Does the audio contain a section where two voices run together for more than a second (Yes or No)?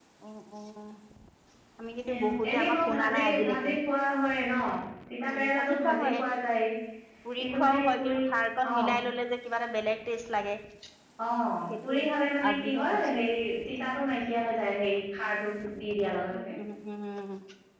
Yes